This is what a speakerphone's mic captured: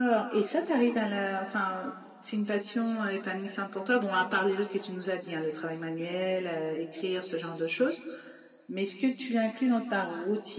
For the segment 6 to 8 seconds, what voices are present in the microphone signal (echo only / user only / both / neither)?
echo only